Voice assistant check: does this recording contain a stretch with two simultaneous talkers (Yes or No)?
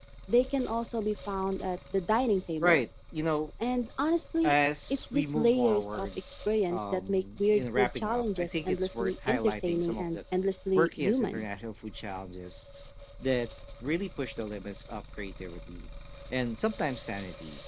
Yes